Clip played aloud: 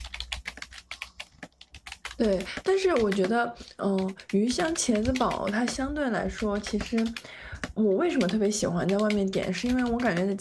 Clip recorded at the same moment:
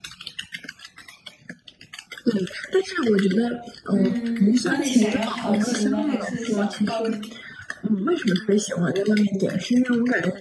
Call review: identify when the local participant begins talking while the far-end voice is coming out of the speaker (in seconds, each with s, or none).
3.9 s